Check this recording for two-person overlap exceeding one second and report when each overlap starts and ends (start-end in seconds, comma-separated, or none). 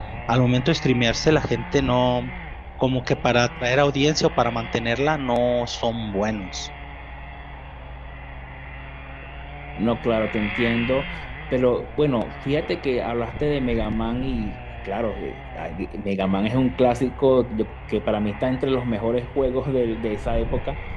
none